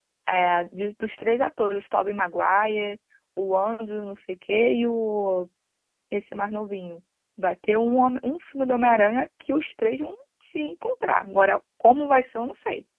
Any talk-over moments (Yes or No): No